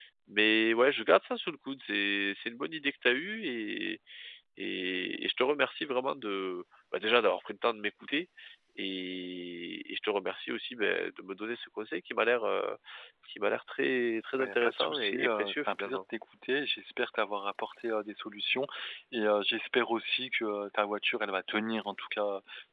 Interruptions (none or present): present